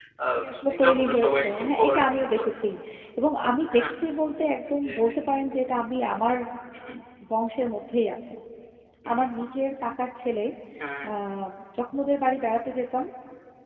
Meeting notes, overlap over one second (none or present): present